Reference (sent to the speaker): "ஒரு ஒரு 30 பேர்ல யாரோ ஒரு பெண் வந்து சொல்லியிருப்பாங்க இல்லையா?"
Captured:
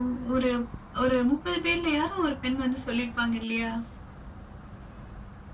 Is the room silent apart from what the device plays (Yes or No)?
Yes